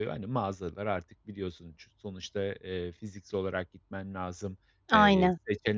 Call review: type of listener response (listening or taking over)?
listening